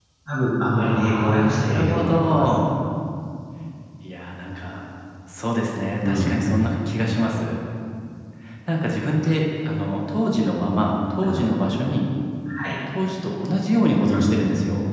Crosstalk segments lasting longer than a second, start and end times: 0.8-2.5

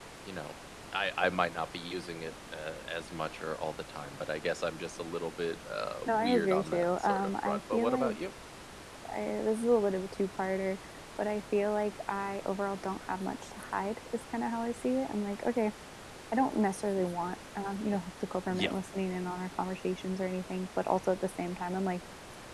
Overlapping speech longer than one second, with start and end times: 6.1-8.2

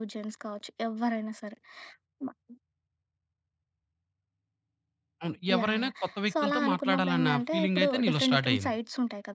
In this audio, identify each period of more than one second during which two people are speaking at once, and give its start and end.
5.6-8.8

